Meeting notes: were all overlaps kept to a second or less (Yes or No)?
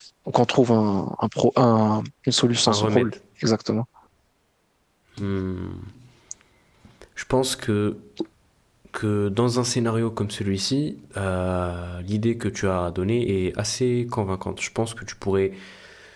Yes